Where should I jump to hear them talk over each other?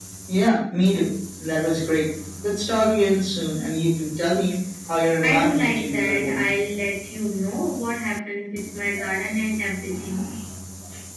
5.2 s

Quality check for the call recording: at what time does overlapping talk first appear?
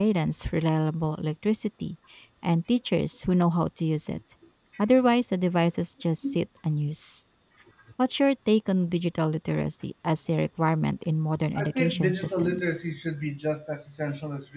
11.6 s

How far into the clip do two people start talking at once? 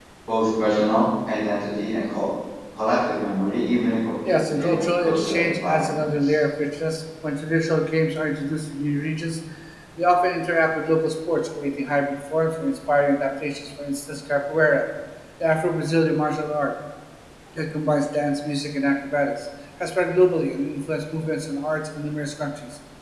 4.2 s

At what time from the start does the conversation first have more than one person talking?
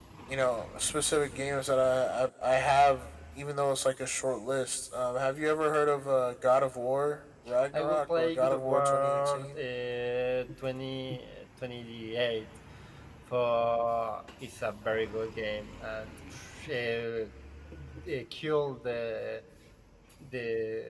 7.7 s

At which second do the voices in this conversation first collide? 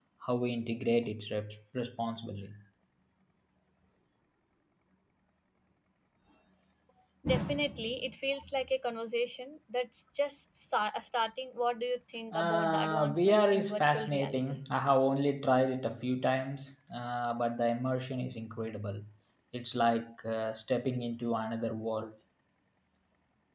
12.3 s

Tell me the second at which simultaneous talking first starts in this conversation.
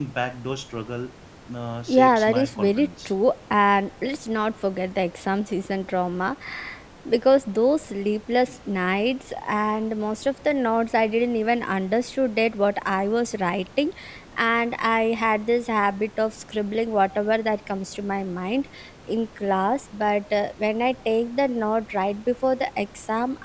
1.9 s

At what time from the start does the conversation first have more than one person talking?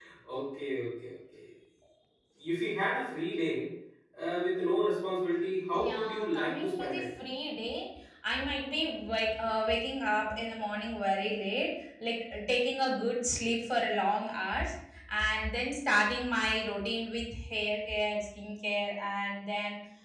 5.7 s

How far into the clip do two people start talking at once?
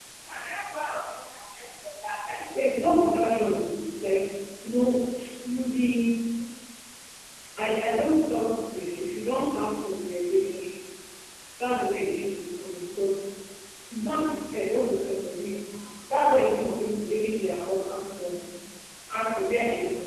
none

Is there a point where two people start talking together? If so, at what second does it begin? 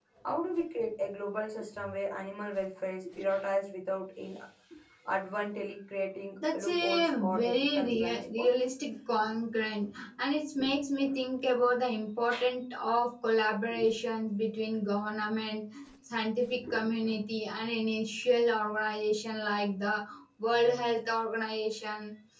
6.4 s

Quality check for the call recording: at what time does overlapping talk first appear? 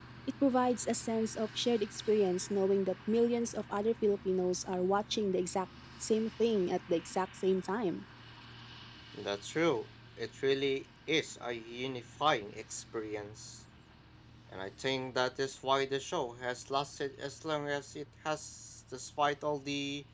none

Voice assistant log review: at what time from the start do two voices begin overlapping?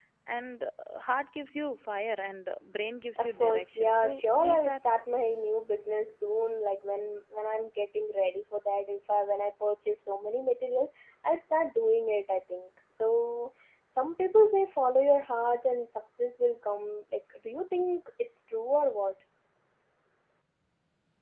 3.2 s

